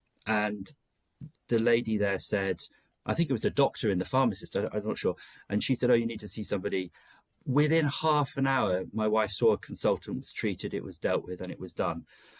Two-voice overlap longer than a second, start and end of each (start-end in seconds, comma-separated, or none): none